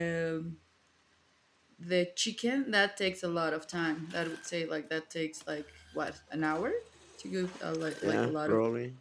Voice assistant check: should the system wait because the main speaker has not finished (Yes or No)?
No